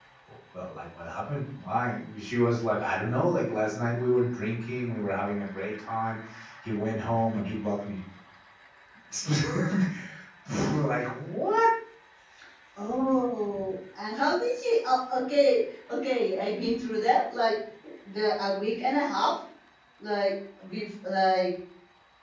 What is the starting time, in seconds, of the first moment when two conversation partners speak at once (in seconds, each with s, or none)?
none